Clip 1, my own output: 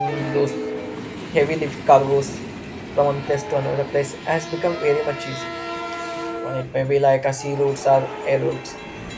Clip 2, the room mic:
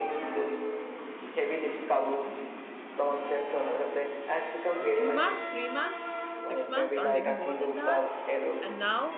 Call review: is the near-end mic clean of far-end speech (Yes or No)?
No